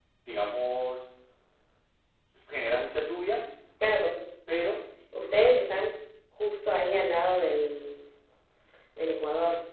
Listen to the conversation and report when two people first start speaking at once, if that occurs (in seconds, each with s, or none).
none